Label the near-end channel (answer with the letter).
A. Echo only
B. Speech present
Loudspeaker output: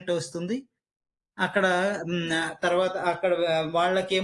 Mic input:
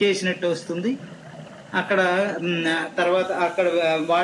A